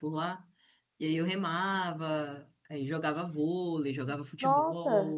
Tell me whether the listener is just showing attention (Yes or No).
No